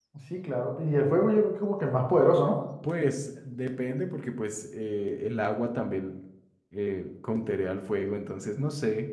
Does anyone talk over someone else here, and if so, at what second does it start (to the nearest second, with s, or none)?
none